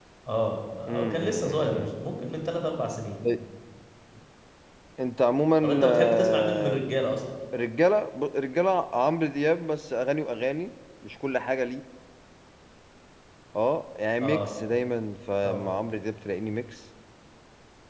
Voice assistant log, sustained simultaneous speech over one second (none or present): present